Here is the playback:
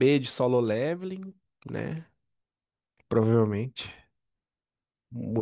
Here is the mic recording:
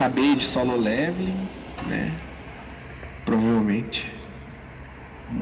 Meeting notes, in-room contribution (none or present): none